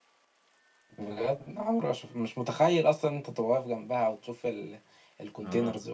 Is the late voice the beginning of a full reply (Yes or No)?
Yes